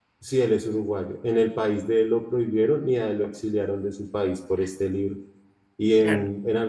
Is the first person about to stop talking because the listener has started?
No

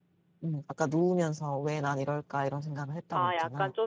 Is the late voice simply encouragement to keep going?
No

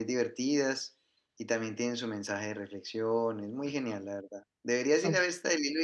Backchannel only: Yes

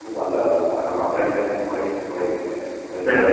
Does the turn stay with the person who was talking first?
No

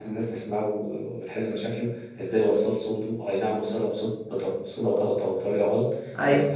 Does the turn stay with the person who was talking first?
Yes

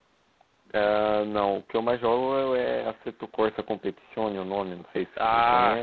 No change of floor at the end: No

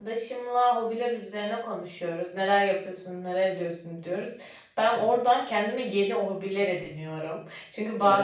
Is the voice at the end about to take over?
No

